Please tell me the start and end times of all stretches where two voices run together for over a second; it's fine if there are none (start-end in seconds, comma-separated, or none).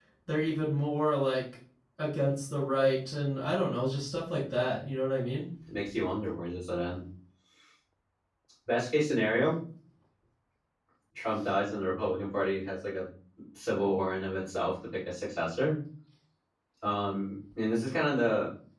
none